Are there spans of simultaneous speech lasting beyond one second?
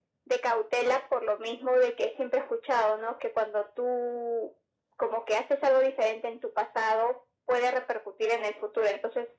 No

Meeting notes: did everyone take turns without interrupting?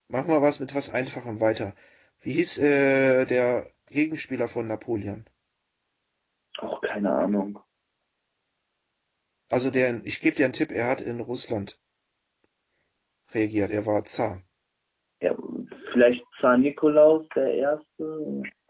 Yes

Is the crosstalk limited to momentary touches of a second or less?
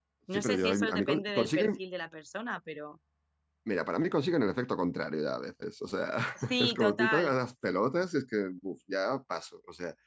No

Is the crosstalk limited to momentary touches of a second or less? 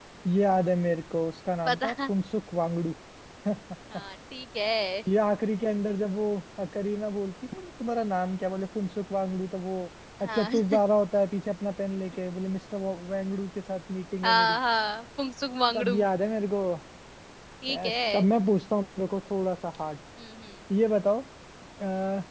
Yes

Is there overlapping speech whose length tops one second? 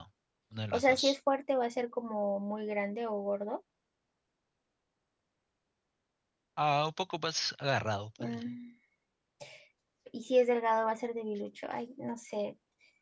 No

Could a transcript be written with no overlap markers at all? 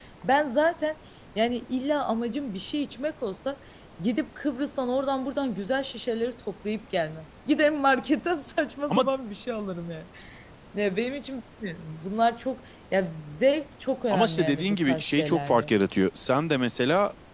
No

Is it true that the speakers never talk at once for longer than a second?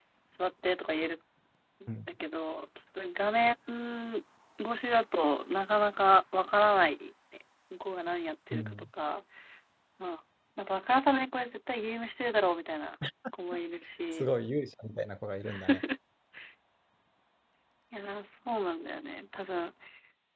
Yes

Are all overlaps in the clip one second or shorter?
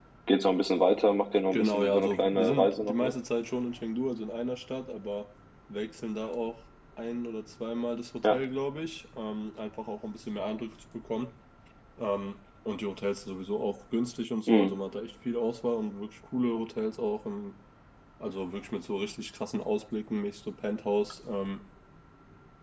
No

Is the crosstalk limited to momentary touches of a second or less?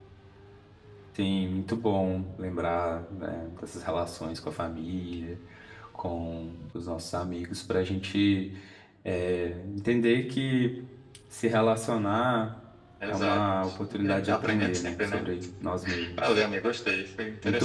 No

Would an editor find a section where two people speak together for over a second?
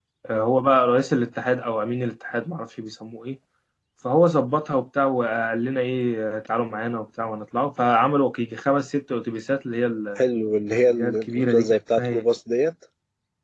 Yes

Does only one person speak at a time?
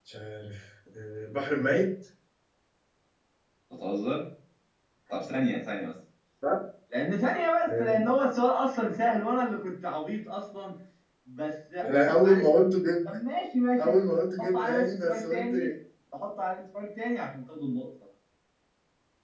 No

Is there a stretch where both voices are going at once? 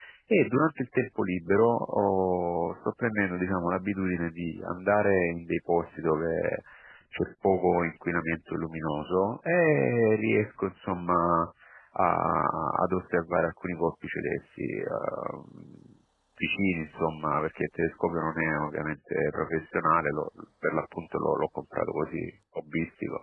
No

